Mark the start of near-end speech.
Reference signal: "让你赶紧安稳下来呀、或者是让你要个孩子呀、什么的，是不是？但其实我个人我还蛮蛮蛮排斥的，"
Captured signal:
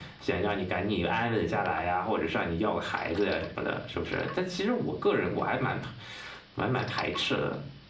none

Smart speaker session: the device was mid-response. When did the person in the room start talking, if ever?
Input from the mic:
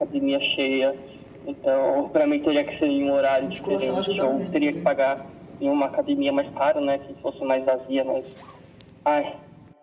3.4 s

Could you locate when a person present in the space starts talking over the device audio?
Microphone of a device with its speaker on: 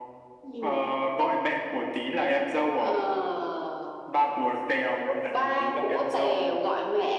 none

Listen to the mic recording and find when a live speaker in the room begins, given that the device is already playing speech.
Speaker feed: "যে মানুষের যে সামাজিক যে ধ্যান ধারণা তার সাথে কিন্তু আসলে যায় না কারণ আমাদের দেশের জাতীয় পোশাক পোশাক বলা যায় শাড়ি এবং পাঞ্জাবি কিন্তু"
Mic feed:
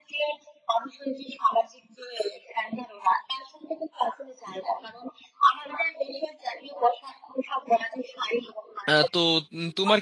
8.9 s

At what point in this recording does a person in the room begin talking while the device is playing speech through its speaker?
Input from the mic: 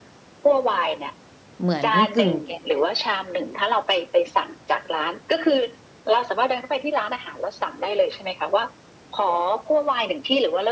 1.6 s

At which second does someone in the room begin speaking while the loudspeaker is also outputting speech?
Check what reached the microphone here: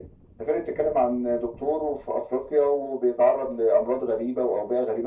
none

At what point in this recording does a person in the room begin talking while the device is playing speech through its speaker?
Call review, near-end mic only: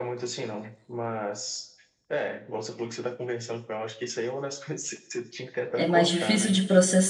5.7 s

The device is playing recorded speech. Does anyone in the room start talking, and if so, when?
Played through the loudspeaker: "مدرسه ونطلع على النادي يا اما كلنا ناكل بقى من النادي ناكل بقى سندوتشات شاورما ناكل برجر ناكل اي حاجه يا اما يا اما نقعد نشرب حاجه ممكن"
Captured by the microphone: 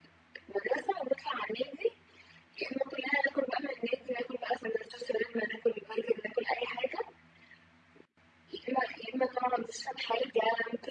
none

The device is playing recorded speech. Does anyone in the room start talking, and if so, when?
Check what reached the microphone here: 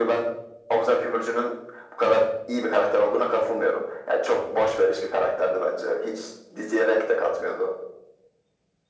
none

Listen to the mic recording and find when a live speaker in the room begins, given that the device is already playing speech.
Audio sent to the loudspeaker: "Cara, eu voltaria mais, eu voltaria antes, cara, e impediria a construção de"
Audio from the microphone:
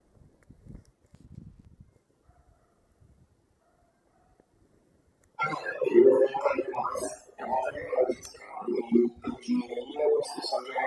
none

